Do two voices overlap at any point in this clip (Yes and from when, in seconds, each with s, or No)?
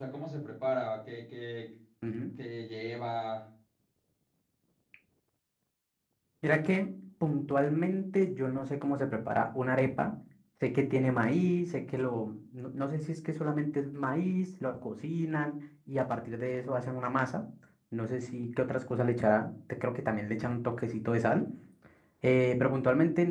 No